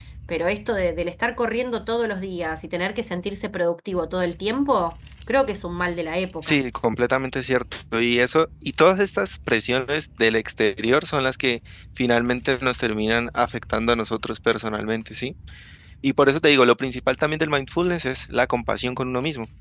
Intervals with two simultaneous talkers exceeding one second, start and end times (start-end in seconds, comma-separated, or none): none